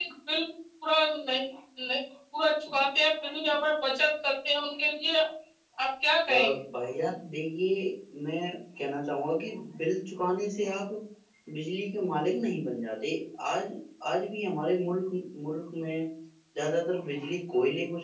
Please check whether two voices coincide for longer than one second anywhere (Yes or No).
No